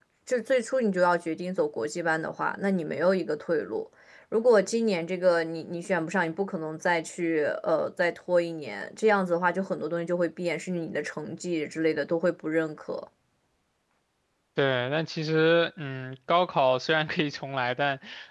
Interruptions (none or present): none